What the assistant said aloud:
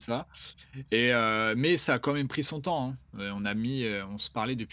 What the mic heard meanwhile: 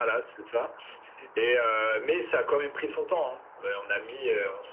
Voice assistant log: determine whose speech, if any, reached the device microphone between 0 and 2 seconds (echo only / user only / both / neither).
echo only